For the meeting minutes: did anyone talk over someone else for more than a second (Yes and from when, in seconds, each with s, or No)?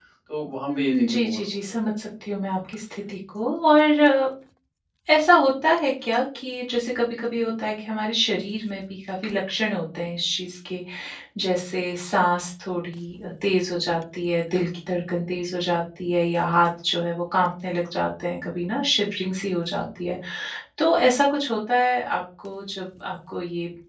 Yes, from 0.7 s